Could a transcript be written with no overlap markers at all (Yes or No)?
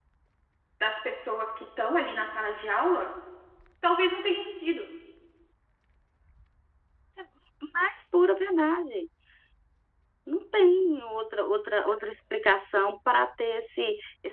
Yes